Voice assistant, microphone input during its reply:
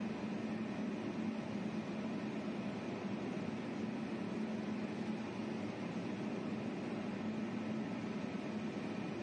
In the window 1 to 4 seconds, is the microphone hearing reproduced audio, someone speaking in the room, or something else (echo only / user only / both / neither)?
neither